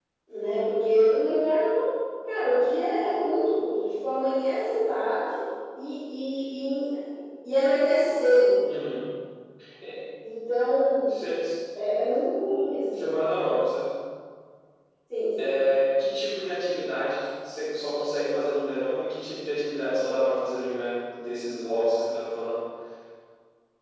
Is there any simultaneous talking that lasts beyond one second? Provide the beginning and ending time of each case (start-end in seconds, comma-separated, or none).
none